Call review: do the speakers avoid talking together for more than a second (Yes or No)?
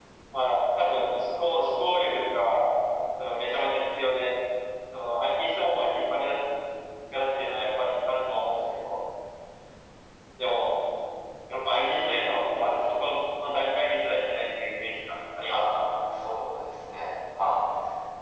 Yes